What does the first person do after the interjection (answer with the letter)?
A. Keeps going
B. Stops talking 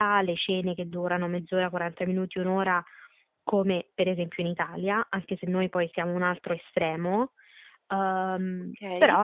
B